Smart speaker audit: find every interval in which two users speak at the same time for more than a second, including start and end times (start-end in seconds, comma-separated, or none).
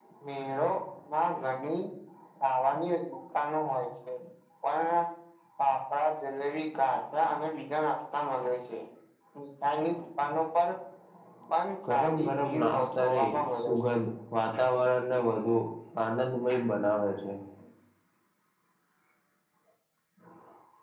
11.9-13.9